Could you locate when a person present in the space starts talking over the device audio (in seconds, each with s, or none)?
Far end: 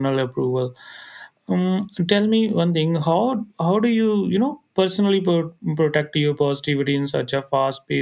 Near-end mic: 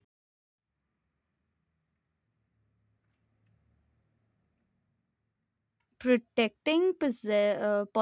6.0 s